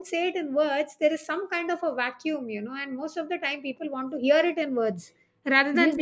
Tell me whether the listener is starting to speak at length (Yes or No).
Yes